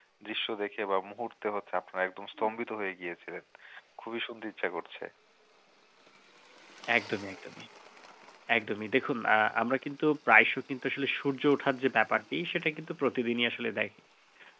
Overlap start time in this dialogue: none

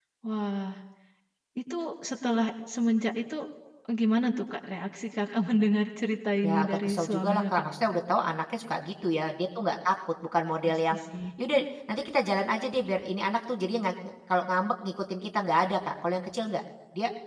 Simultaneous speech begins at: 6.4 s

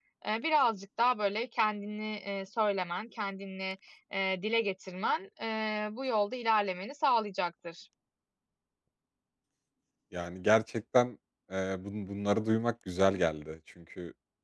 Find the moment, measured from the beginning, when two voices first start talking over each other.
none

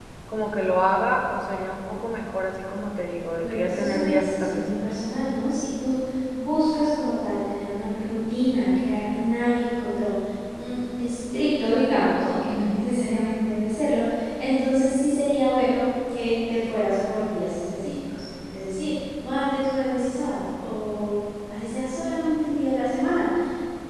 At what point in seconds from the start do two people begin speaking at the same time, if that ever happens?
3.4 s

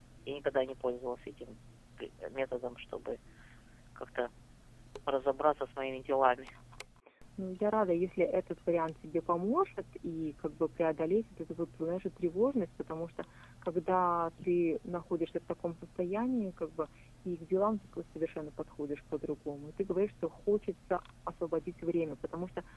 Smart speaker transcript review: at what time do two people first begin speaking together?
none

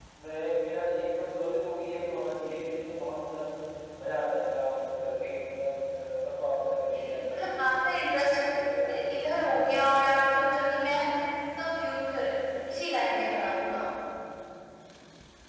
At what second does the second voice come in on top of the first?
6.9 s

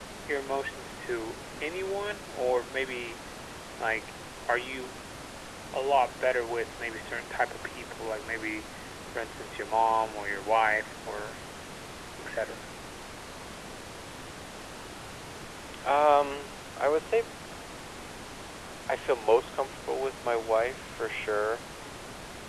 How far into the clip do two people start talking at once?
none

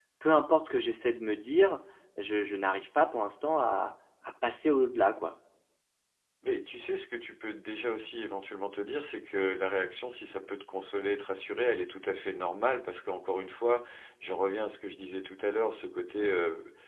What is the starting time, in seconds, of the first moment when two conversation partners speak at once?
none

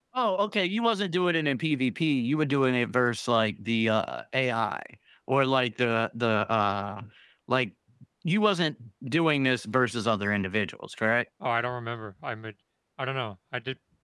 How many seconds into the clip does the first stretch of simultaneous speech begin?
none

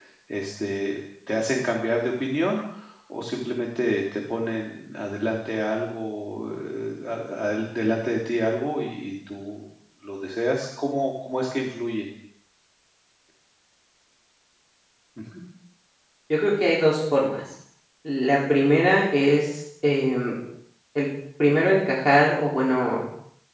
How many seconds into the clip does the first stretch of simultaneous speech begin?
none

